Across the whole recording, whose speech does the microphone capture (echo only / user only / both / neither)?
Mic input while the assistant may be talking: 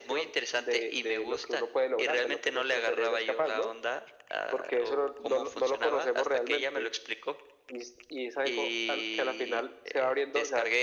echo only